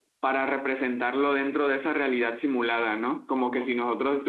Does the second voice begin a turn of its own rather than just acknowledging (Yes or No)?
No